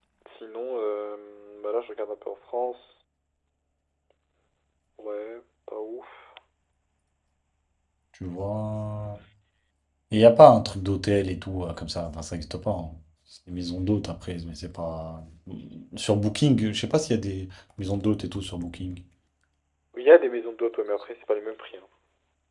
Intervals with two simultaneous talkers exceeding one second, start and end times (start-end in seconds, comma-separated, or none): none